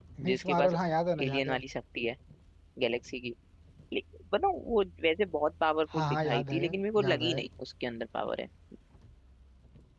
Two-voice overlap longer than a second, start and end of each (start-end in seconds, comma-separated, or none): 6.0-7.4